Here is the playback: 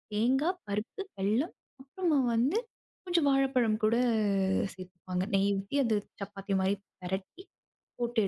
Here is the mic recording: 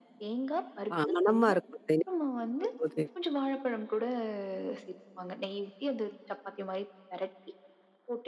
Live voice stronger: Yes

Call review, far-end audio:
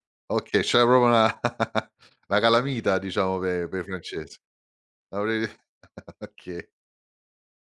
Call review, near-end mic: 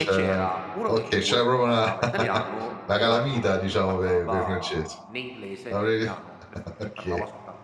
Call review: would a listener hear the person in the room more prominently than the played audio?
No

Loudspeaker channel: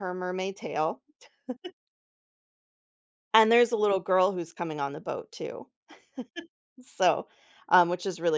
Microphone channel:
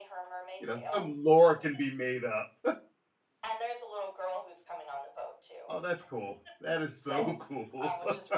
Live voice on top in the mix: Yes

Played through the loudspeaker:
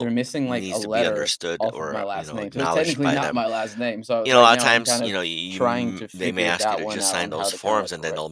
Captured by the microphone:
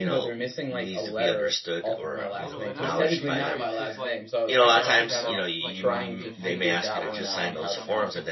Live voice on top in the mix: No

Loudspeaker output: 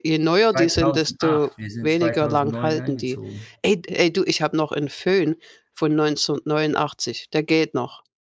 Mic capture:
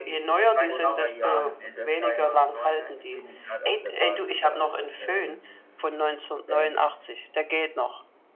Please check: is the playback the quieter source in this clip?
No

